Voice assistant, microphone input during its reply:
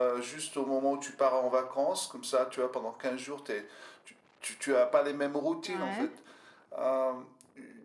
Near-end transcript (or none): ouais.